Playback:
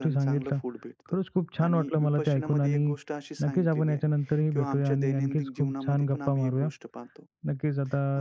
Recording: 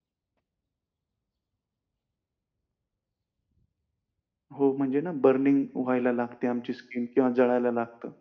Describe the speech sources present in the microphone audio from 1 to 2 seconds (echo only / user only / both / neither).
neither